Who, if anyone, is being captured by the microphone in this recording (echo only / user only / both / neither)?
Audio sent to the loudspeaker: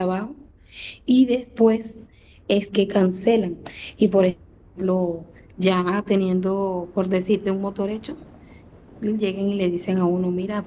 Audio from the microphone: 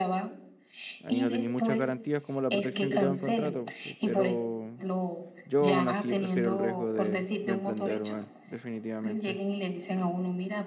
both